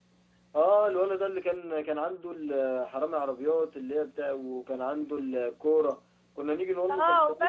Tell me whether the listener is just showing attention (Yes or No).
No